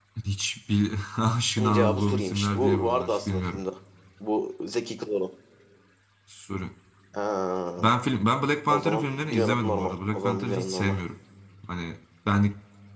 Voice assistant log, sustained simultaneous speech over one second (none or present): present